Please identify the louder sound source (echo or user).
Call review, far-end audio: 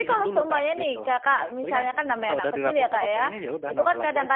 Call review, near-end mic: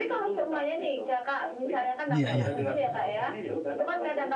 user